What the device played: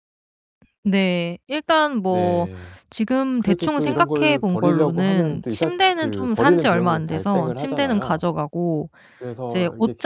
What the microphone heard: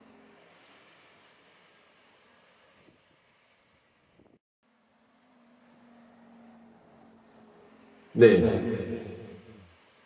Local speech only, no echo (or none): 네.